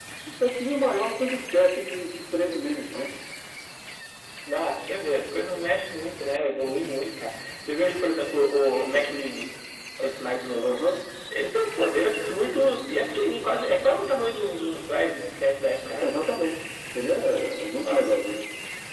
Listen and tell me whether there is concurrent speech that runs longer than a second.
No

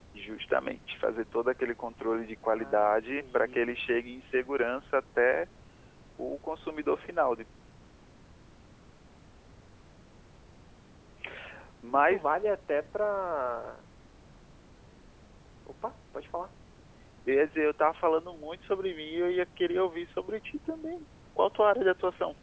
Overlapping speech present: Yes, from 2.5 s

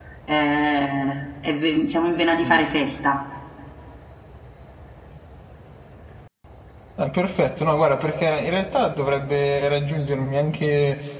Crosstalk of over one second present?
No

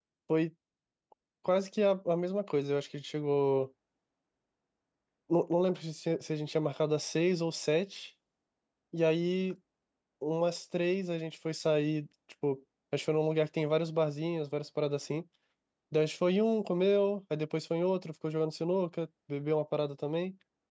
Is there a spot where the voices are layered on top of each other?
No

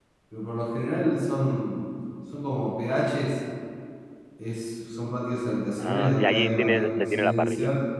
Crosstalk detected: Yes, from 5.8 s

